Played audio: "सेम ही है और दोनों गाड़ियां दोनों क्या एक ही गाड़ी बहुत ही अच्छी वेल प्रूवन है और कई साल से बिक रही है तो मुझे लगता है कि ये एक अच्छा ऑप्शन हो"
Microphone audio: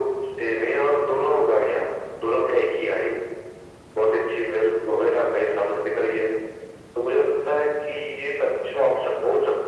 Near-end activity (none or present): none